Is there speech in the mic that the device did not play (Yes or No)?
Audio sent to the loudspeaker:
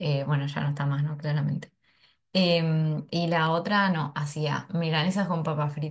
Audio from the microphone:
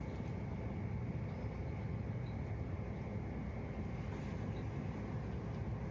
No